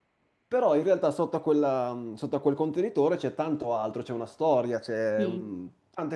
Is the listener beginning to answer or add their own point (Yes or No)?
No